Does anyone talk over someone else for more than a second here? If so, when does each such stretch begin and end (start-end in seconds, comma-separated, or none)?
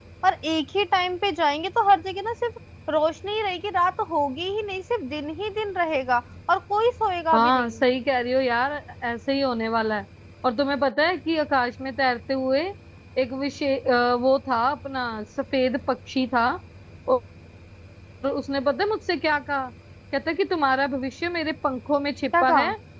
none